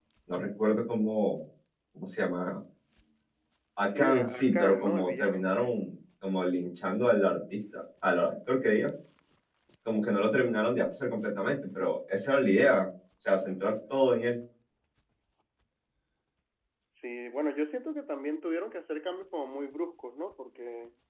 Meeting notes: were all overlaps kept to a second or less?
No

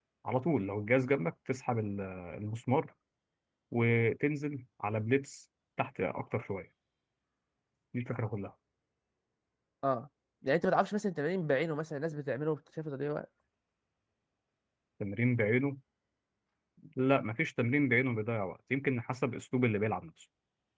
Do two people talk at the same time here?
No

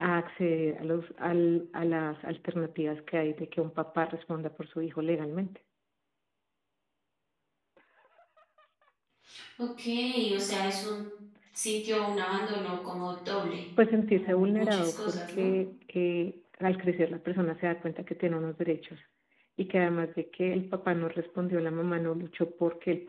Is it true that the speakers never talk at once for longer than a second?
No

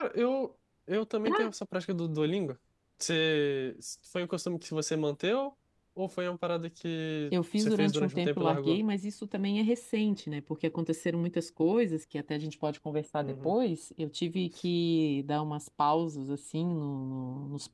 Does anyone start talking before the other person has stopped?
Yes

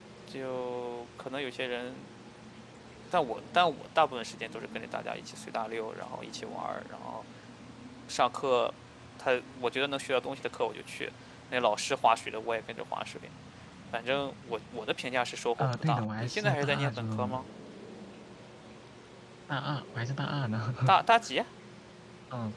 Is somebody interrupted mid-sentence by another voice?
Yes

